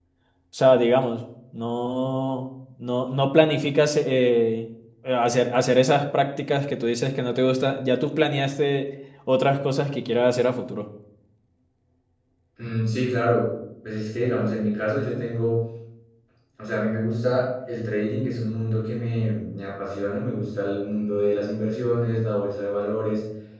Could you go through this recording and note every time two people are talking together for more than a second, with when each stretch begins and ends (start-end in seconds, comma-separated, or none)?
none